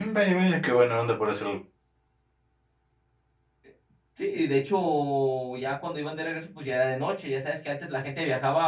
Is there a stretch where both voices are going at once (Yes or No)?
No